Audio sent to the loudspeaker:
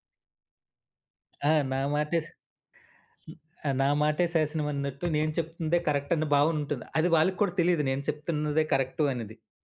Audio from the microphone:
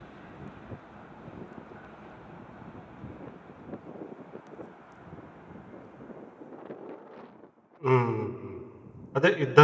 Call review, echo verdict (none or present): none